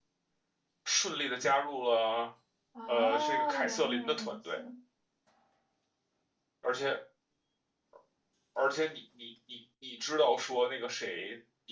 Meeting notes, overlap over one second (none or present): present